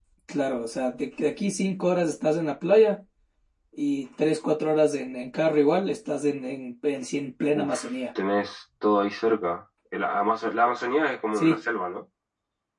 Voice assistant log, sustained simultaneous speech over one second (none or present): none